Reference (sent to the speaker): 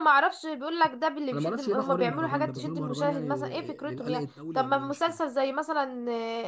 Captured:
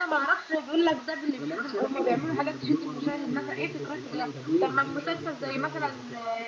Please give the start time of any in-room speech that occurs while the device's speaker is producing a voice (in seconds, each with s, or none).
3.5 s